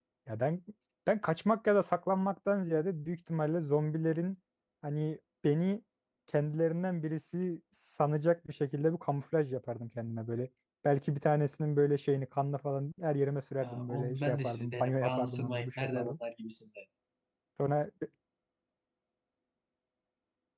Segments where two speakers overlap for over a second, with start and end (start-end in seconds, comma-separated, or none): 13.6-16.2